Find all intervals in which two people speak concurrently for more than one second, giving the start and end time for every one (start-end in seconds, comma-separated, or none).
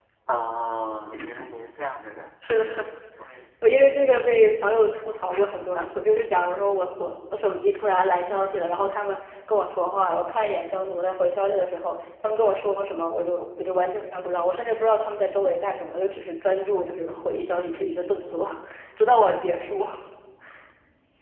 none